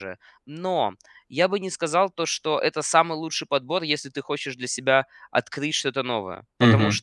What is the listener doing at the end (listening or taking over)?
listening